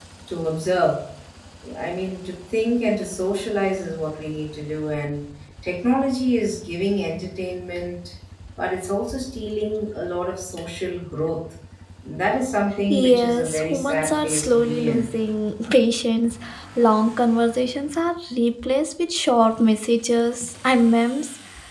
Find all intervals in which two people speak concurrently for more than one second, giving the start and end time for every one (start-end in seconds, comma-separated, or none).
12.9-15.1